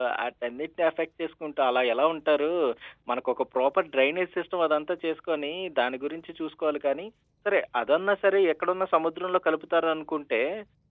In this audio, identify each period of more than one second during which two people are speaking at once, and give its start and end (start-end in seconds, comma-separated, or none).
none